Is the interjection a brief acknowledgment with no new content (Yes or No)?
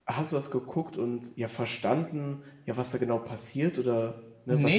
No